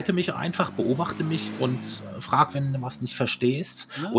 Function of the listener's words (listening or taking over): listening